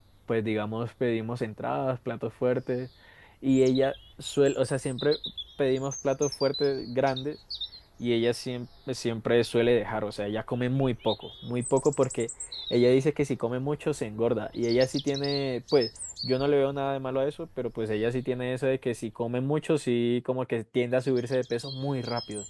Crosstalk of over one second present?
No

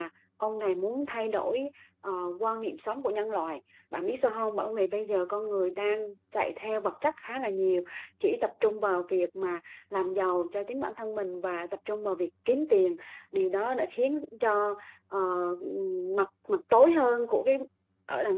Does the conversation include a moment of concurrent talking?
No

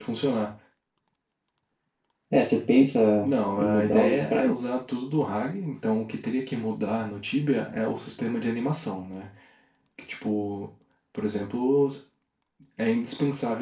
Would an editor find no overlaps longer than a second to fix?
No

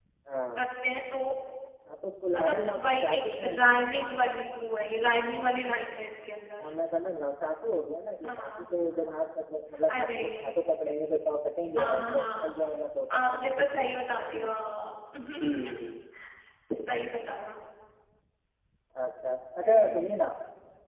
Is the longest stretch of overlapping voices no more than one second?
No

